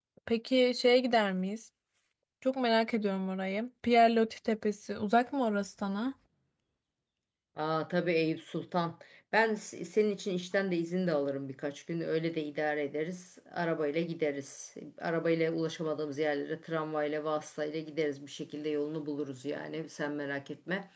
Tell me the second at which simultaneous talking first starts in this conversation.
none

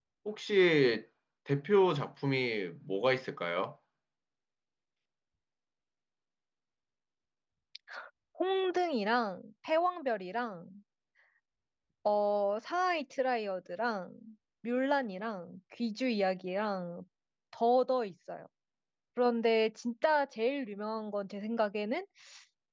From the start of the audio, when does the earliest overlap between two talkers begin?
none

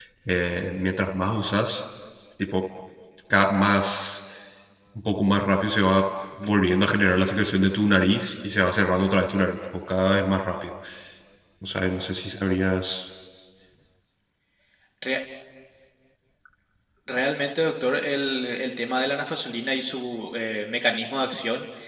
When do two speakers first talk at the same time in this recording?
none

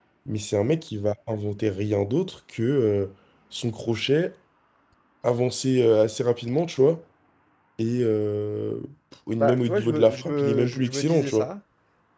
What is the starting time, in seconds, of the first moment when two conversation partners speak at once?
9 s

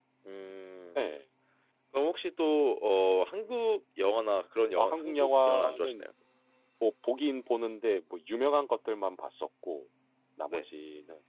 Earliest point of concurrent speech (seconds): 5 s

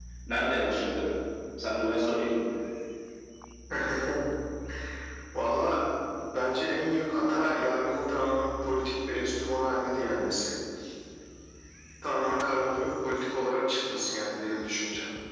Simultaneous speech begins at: none

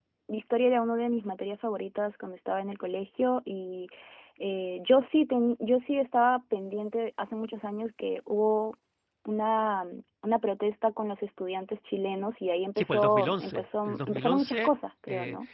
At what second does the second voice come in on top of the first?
13 s

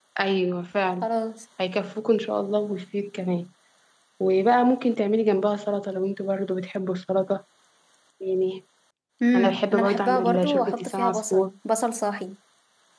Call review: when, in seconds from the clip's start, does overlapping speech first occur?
9 s

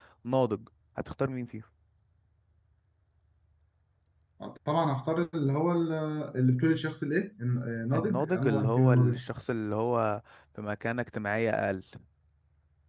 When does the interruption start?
8 s

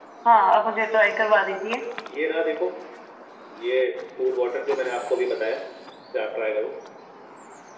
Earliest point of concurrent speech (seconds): none

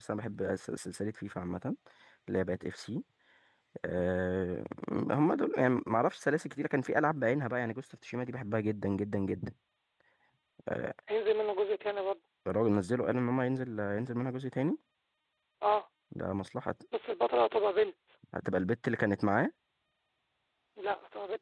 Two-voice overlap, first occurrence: none

